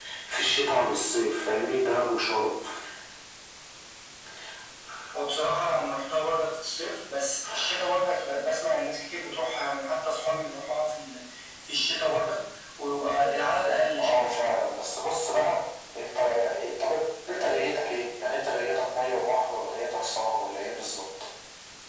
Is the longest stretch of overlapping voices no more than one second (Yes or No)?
Yes